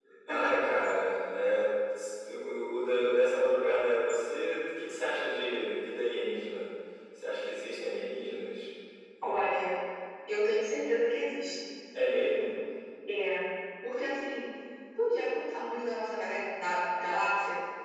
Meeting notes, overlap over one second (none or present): none